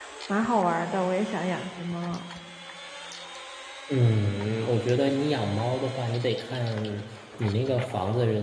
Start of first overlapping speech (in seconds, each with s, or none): none